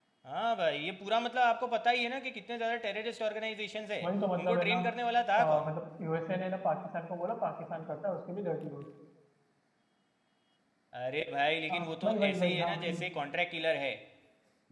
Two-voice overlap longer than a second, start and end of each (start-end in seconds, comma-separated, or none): 11.7-12.9